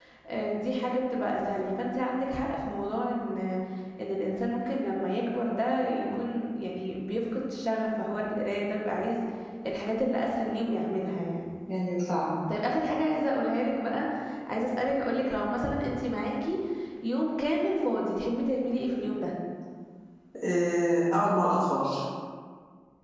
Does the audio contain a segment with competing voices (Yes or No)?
No